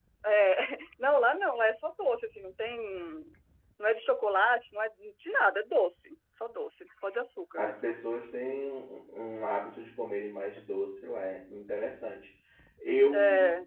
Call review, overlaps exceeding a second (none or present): none